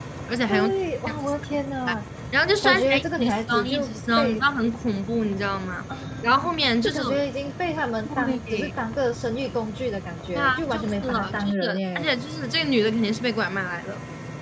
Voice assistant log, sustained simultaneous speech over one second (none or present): present